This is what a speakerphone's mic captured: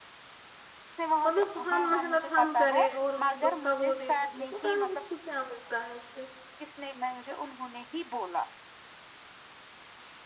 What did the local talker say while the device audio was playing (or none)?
مطلب ہم محنت ہم کریں اور دوکھا وہ دے دیے پتا نہیں اس کو کیا بن کہہ ہے سس